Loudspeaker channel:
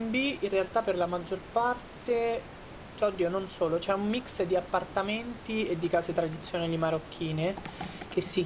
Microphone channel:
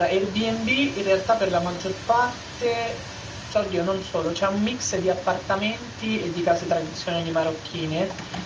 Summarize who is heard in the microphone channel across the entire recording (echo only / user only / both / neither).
echo only